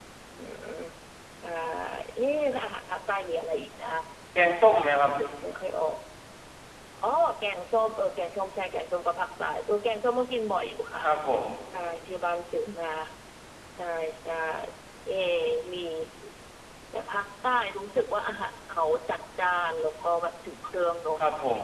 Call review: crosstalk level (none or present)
none